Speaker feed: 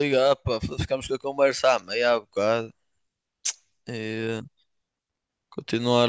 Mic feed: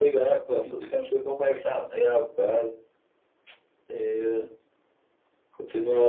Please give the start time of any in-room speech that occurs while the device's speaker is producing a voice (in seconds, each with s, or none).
none